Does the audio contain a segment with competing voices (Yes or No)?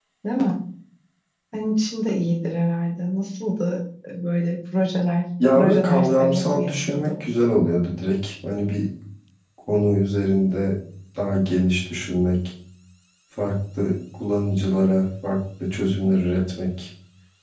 Yes